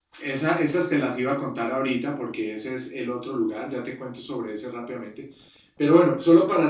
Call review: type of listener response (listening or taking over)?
listening